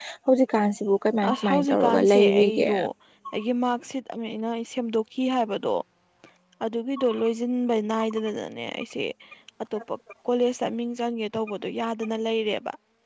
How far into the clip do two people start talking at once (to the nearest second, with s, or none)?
1 s